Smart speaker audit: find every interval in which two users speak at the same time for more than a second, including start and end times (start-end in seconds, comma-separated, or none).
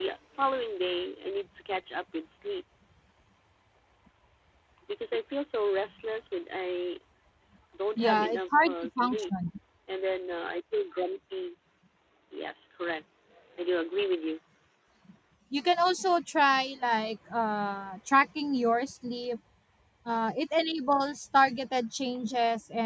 8.0-9.3